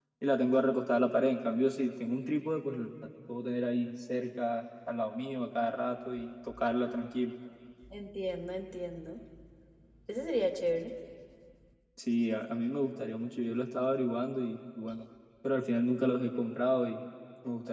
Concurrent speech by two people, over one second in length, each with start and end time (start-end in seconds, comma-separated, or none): none